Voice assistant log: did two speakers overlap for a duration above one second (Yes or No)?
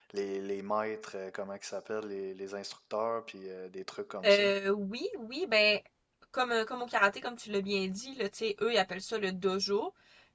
No